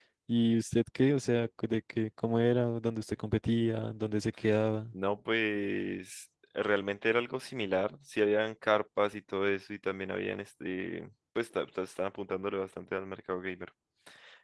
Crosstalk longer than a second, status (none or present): none